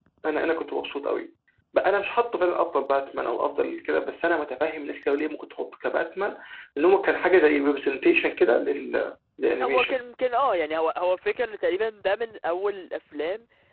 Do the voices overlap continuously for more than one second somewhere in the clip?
No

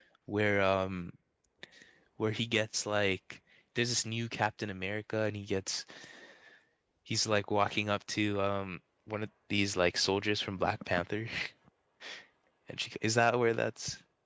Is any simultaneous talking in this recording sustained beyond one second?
No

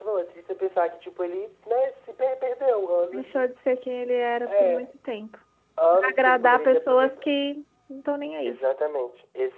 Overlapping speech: Yes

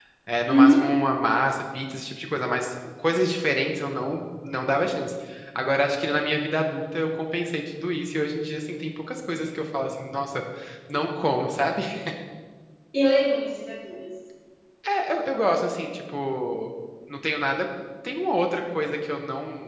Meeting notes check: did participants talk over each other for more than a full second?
No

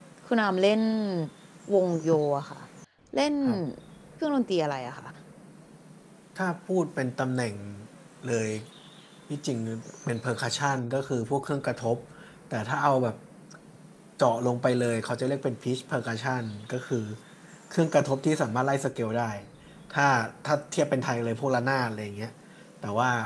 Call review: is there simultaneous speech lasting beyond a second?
No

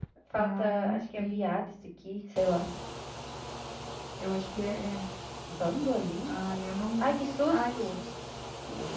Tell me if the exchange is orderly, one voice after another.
No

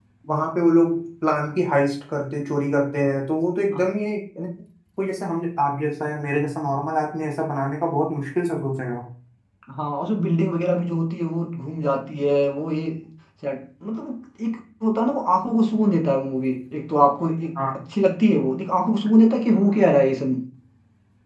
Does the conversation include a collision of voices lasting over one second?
No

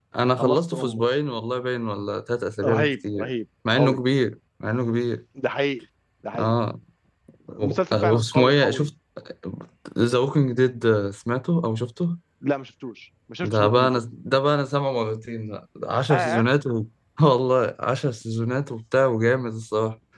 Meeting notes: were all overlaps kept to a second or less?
No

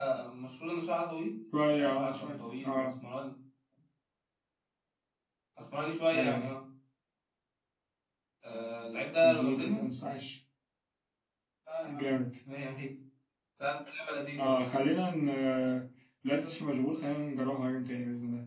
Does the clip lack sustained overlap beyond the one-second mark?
No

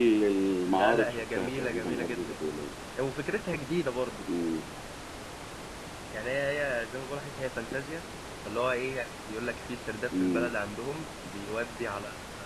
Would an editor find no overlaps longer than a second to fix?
No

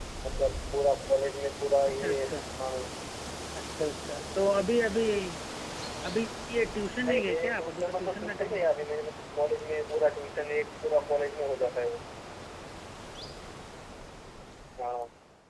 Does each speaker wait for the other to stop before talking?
No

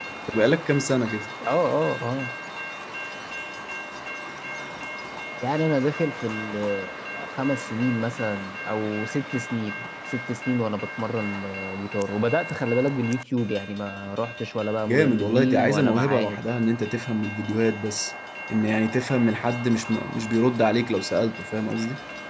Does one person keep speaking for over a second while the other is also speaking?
Yes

